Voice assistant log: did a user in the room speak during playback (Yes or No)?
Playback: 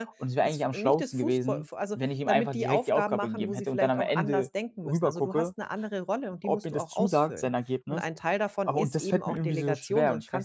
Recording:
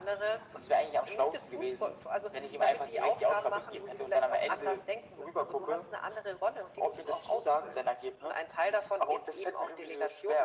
No